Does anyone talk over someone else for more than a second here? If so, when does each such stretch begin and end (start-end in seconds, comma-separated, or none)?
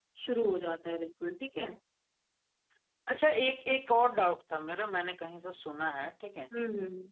none